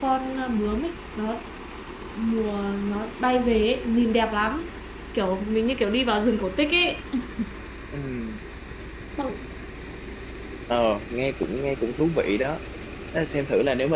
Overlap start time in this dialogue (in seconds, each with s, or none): none